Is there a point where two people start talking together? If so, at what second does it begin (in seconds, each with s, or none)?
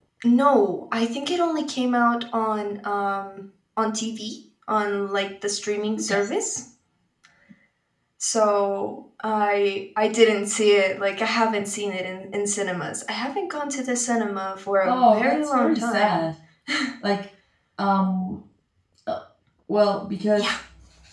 14.8 s